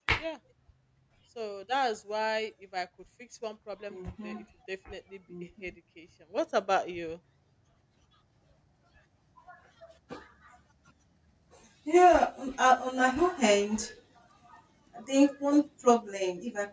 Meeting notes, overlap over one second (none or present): none